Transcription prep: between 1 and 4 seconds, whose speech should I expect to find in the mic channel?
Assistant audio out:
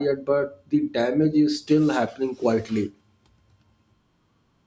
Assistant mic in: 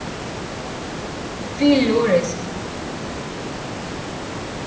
user only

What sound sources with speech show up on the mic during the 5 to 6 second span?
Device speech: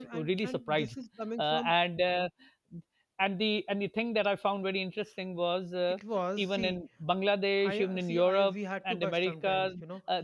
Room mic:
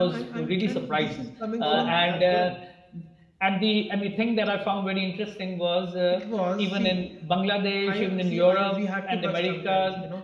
echo only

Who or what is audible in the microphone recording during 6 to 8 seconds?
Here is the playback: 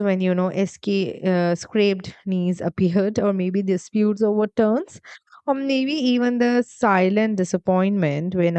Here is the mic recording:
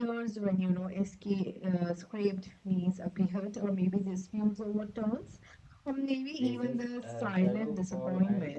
both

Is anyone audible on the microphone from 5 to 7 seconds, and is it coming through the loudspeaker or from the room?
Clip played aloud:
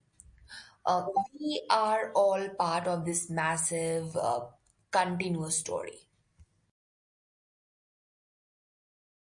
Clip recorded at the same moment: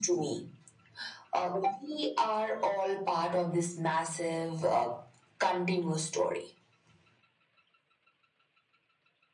echo only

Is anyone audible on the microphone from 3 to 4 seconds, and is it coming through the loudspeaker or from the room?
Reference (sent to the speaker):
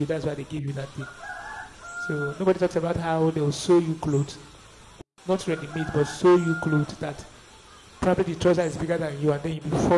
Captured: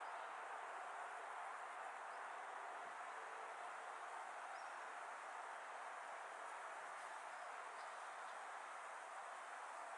neither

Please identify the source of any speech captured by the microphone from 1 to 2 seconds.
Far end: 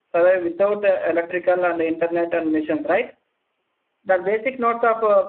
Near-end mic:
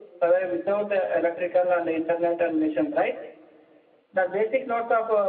echo only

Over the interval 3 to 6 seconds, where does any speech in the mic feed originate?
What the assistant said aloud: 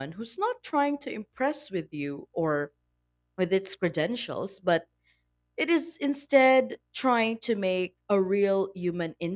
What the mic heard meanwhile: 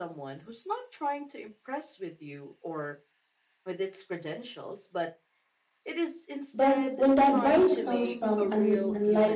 echo only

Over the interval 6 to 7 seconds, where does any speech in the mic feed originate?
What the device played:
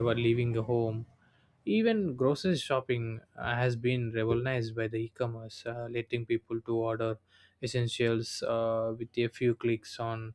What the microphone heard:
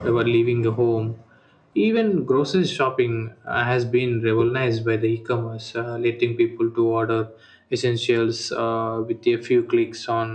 echo only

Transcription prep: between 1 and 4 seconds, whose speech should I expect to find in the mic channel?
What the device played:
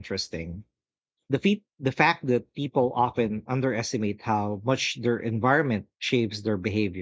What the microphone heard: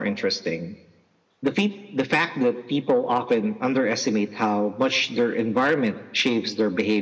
echo only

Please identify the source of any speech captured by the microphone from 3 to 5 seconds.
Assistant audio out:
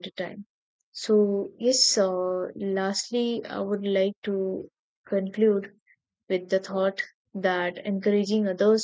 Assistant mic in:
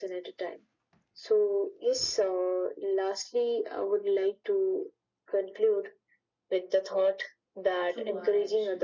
echo only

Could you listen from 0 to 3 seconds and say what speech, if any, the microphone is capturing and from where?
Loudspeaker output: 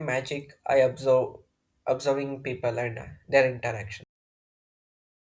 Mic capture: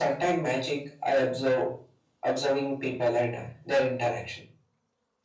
echo only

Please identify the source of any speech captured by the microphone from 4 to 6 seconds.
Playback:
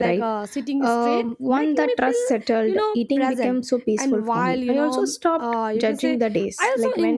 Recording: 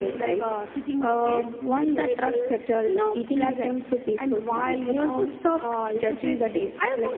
echo only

